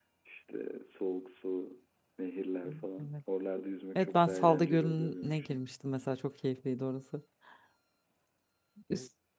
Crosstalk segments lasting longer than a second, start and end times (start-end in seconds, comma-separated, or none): 4.0-5.6